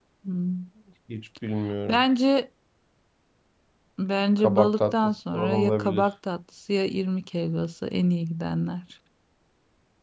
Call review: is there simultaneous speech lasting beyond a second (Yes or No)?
Yes